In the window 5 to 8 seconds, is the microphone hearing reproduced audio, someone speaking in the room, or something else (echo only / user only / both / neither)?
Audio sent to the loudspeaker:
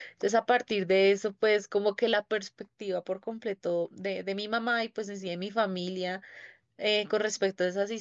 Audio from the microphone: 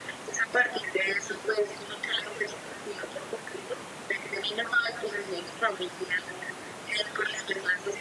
echo only